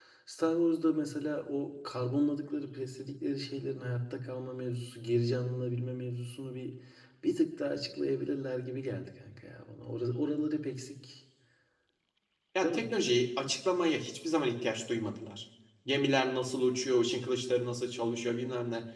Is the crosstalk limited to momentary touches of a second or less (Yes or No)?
Yes